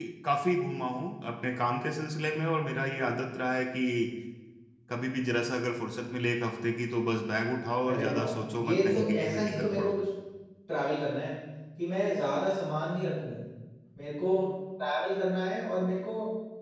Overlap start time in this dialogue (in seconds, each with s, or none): 7.8 s